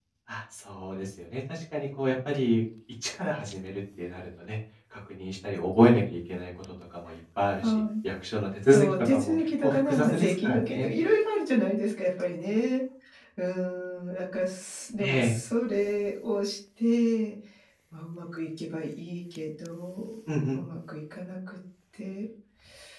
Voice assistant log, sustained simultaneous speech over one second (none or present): present